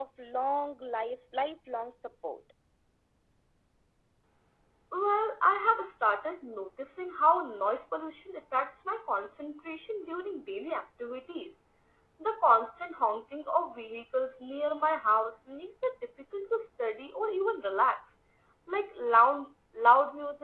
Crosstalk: none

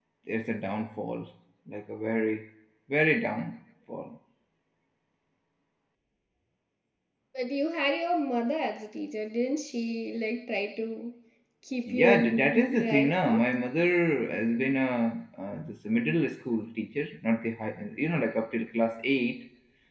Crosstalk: present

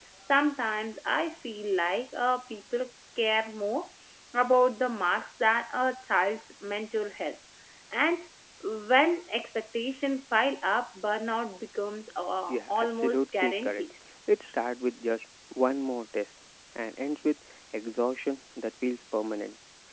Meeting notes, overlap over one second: present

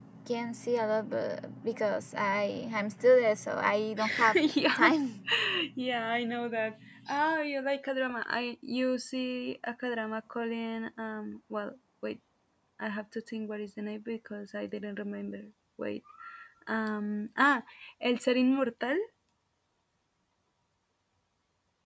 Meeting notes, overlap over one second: none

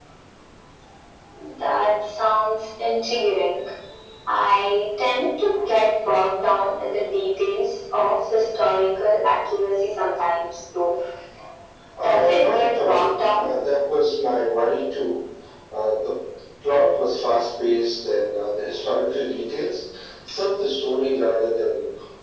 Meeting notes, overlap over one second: present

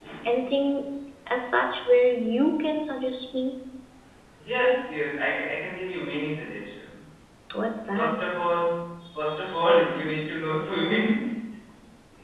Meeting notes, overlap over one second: none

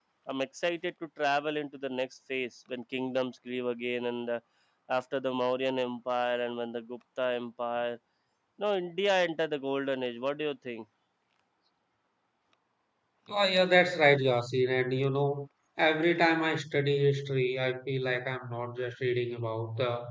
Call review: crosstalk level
none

